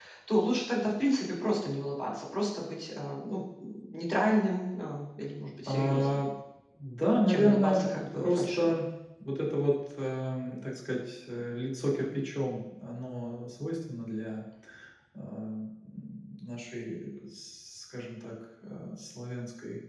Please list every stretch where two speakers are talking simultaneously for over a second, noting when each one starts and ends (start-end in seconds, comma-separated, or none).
7.3-8.7